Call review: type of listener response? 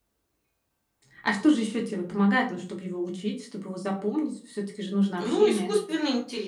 taking over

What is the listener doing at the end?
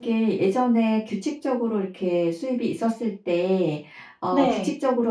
listening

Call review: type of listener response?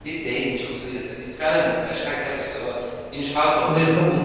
taking over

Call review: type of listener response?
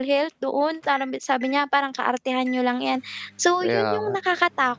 listening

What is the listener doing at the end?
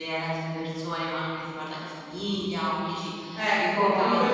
taking over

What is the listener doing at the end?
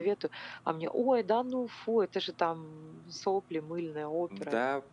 taking over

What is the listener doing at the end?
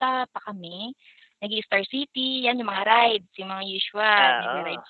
listening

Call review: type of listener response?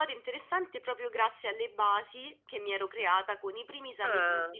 listening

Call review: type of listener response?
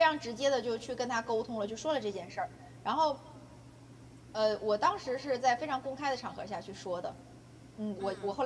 listening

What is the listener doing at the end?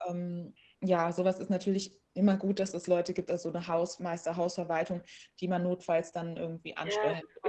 taking over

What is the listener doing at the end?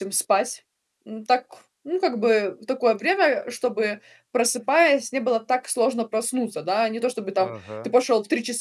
listening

